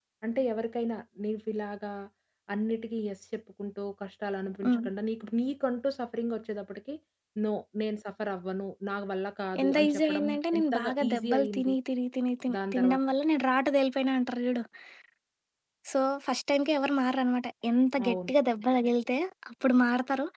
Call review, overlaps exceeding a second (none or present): present